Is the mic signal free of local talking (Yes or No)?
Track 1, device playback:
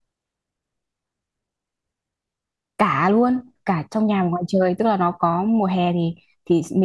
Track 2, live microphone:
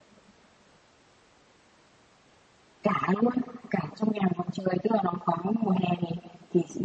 Yes